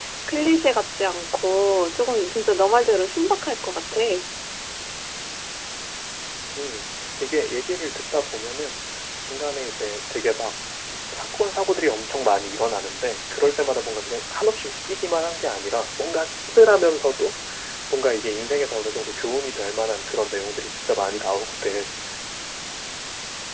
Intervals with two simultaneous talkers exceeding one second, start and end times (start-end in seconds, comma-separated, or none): none